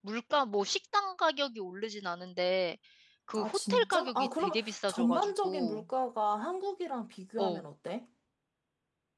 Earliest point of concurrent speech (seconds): 3.4 s

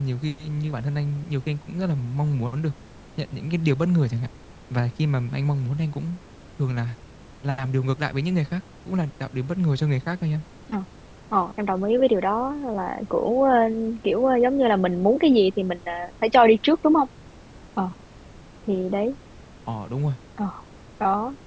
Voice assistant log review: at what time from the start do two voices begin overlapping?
none

